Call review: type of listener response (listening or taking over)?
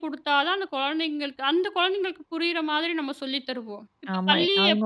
taking over